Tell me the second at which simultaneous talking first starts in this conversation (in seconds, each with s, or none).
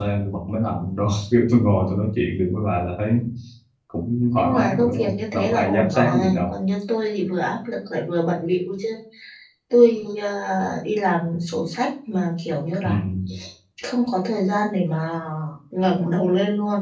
4.4 s